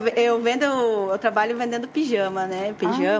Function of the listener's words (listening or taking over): listening